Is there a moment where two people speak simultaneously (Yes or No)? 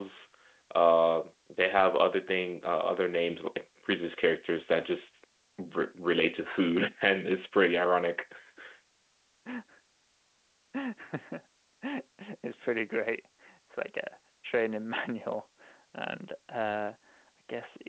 No